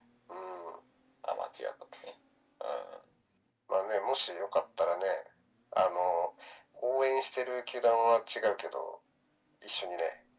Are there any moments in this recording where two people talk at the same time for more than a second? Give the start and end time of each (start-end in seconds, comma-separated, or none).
none